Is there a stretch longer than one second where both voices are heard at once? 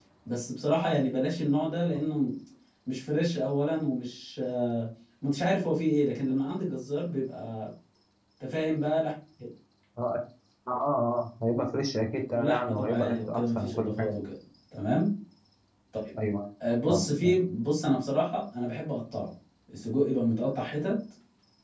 Yes, from 12.3 s

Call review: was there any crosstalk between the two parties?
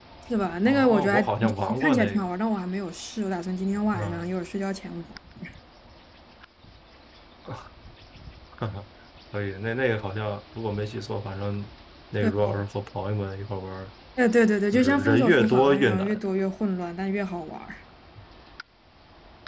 Yes, from 0.7 s

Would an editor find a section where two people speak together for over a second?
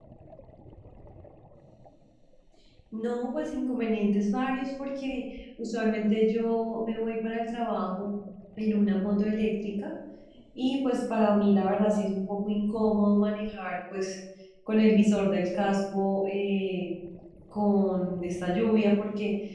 No

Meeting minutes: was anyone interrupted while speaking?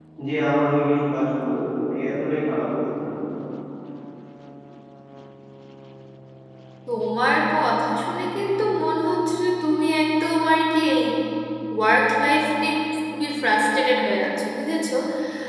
No

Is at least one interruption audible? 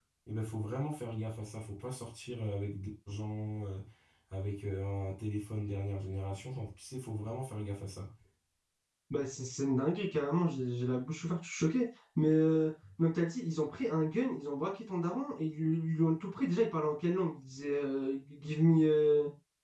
No

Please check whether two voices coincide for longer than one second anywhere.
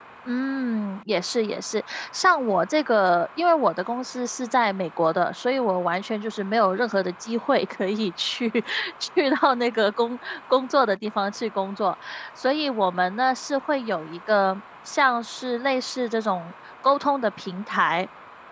No

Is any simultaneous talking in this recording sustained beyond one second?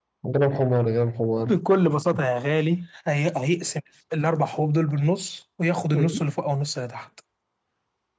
No

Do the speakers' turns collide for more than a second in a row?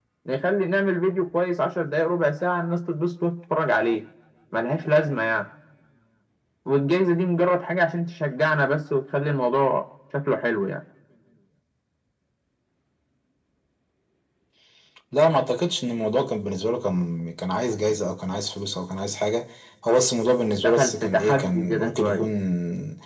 Yes, from 20.5 s

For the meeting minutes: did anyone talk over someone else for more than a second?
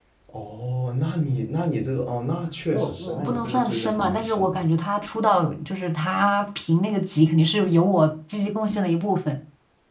Yes, from 2.7 s

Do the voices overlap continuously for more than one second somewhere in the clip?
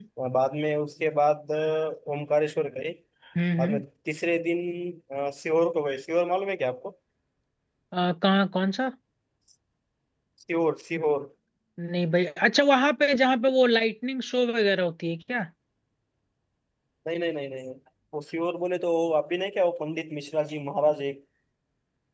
No

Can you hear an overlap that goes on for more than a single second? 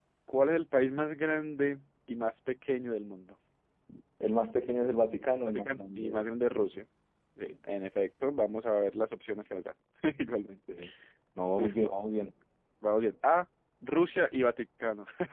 Yes, from 5.5 s

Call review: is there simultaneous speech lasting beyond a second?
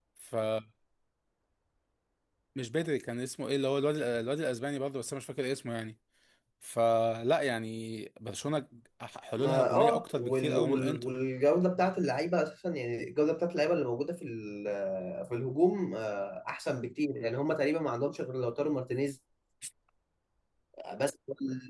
Yes, from 9.4 s

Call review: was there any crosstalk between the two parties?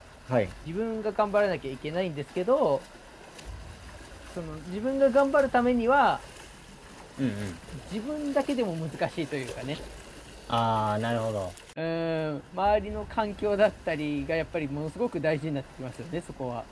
No

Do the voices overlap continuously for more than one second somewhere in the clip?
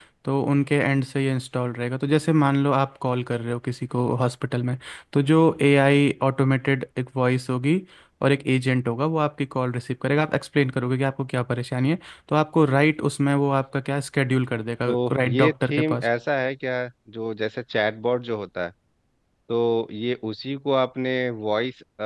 Yes, from 14.9 s

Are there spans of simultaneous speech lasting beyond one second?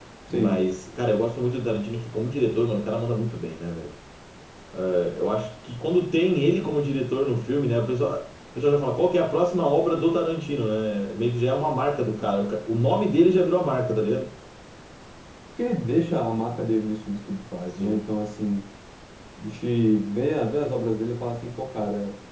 No

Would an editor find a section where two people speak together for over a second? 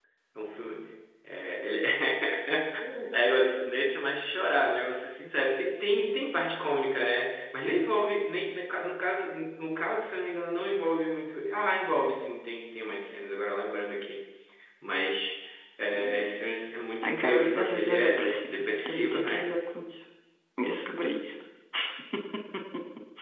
Yes, from 17.0 s

